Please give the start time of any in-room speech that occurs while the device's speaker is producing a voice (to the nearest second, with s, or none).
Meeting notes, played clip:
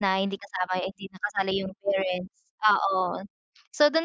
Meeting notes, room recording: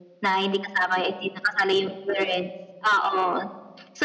none